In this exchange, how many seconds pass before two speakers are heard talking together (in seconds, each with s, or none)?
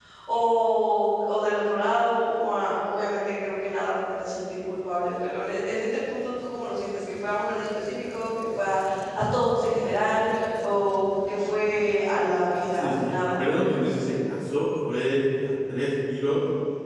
12.7 s